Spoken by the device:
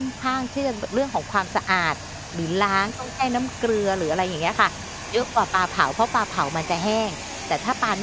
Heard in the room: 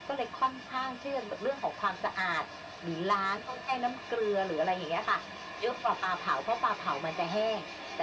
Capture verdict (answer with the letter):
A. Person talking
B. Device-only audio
B